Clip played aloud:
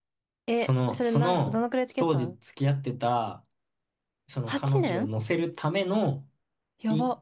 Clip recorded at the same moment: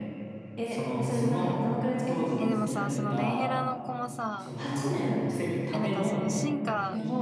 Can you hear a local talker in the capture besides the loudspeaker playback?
Yes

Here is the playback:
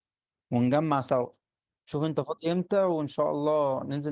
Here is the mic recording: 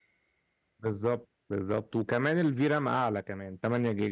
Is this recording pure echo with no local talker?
No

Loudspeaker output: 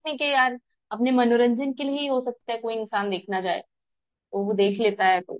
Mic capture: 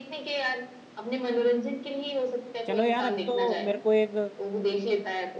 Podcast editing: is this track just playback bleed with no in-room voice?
No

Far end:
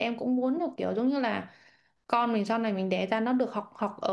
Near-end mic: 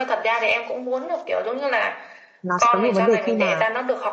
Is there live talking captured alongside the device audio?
Yes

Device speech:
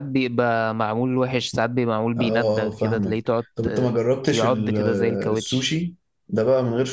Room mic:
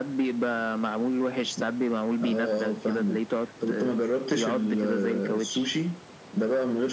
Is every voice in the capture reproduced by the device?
Yes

